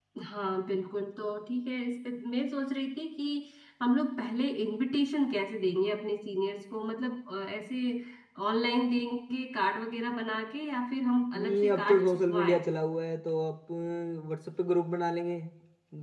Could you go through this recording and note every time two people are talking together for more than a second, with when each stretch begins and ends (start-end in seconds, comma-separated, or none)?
11.3-12.6